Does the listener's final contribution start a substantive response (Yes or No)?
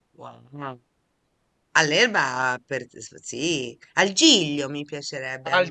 Yes